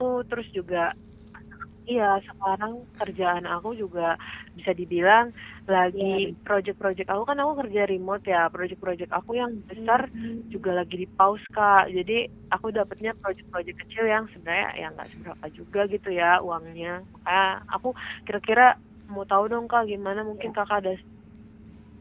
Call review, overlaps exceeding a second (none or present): none